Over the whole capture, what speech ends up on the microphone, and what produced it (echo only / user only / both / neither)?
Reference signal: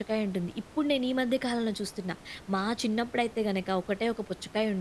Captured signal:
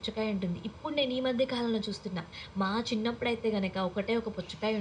echo only